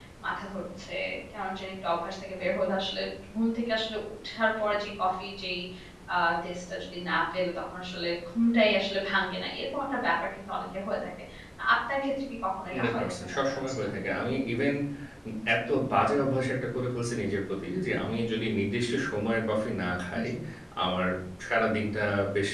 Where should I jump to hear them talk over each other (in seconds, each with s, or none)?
12.7 s